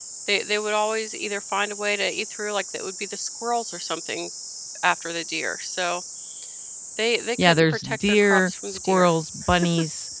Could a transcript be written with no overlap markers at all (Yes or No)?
No